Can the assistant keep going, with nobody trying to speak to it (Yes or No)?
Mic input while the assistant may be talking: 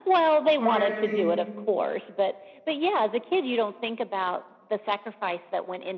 No